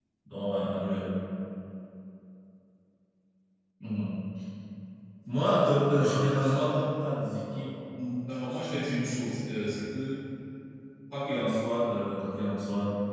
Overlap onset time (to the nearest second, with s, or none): 5 s